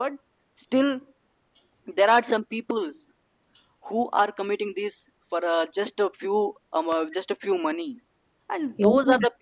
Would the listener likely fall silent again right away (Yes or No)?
Yes